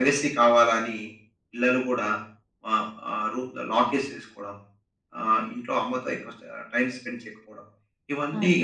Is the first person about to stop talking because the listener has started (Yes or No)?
Yes